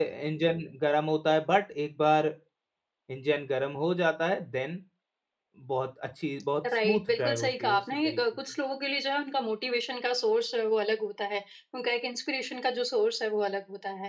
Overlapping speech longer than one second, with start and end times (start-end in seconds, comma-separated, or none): 6.7-8.2